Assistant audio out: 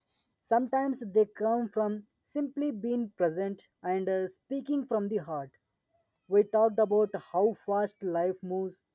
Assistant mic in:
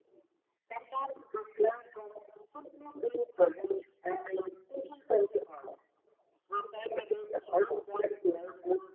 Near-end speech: none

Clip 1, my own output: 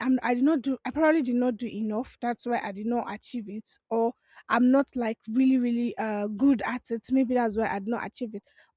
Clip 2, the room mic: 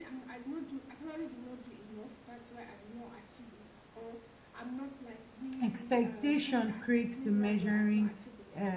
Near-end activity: present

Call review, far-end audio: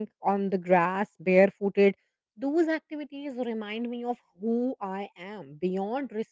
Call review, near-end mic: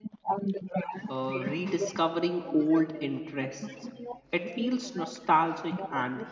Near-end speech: present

